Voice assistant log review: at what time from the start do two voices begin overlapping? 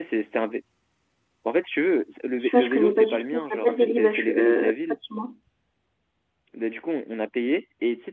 2 s

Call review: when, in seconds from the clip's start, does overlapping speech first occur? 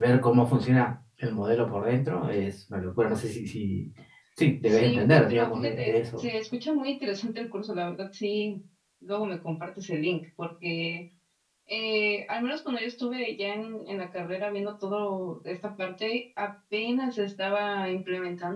5 s

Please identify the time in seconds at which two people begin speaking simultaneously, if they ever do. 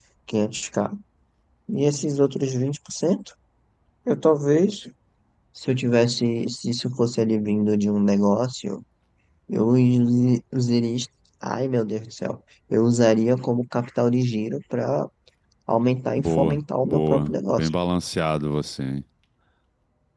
16 s

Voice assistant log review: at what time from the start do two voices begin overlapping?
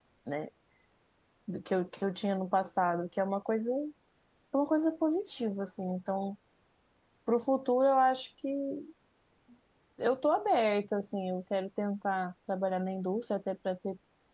none

